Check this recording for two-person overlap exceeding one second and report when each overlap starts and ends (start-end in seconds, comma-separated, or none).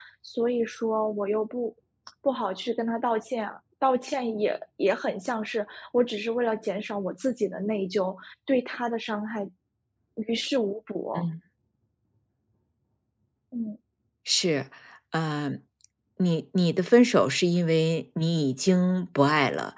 none